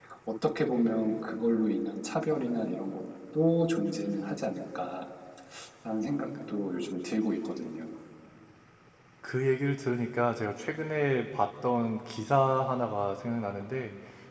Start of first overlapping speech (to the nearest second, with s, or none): none